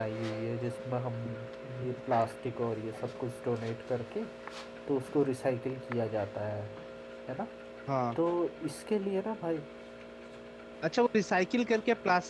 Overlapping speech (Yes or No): No